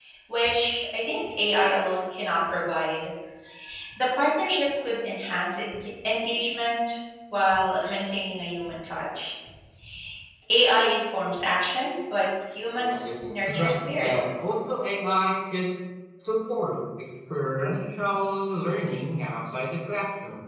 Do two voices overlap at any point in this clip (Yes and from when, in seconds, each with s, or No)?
Yes, from 12.7 s